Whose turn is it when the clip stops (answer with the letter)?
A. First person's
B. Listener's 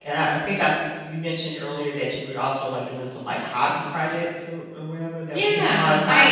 B